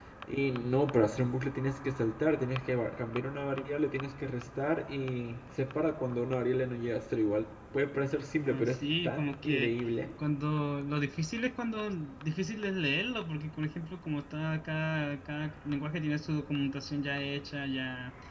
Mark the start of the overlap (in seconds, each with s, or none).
8.4 s